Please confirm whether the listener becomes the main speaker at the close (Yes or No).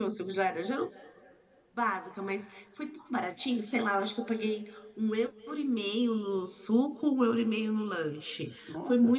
No